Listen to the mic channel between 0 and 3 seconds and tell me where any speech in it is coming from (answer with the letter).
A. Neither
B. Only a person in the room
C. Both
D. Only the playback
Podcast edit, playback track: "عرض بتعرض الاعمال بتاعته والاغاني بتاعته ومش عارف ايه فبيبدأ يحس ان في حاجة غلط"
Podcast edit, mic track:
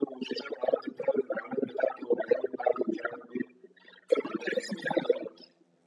D